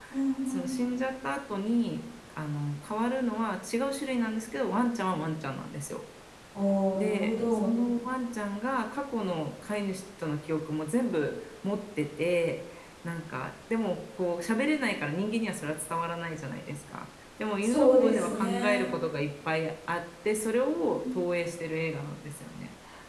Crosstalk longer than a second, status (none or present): present